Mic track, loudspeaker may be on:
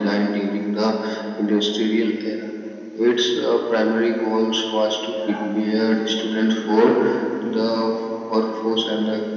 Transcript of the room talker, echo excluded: none

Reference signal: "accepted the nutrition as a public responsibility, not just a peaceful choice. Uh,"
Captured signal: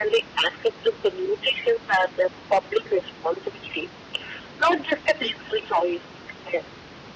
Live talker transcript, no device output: none

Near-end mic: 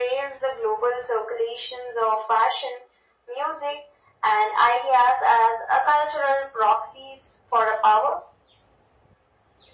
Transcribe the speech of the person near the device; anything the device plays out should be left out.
none

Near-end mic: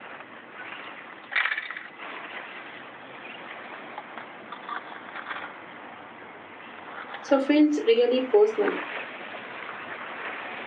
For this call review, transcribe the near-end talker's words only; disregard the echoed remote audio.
So feels really personal.

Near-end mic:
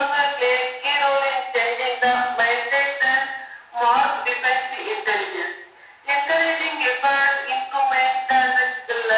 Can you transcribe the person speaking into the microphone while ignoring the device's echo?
none

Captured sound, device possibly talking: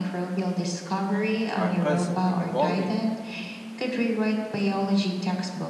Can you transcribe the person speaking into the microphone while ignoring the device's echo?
are constantly evolving.

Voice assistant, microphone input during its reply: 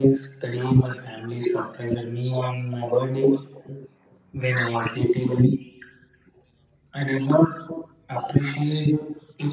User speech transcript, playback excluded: none

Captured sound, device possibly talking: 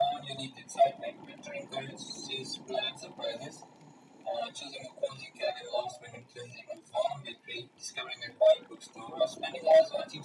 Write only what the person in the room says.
none

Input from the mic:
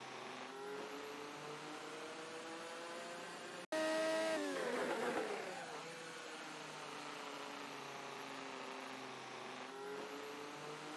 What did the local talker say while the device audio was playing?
none

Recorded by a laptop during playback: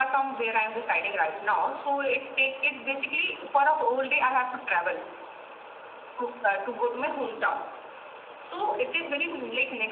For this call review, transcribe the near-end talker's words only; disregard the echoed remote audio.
none

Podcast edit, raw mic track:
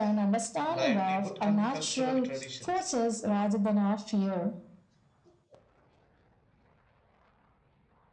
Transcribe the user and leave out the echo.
livelihood and cultural traditions

